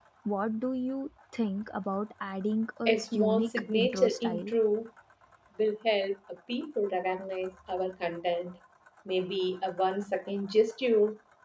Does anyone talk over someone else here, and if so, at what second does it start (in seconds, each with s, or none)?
2.9 s